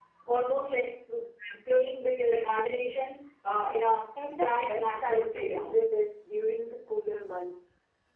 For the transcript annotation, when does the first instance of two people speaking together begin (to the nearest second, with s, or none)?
4 s